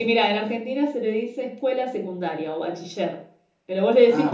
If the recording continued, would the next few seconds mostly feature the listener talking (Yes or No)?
Yes